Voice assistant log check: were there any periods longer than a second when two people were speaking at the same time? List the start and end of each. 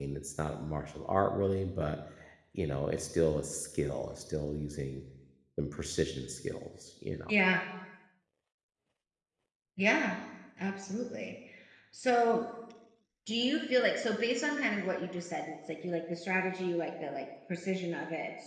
none

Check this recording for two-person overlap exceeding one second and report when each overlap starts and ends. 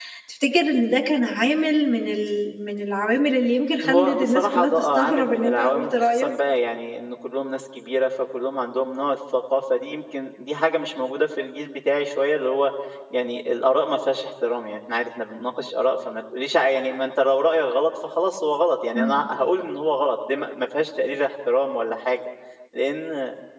3.8-6.3

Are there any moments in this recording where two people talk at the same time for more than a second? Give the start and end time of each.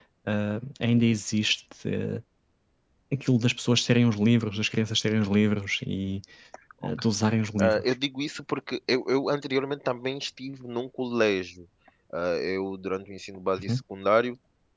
none

